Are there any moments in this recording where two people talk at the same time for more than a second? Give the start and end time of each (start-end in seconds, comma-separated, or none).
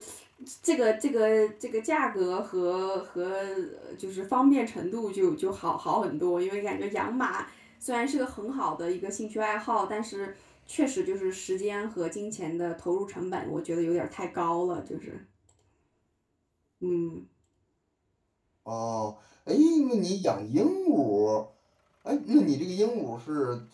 none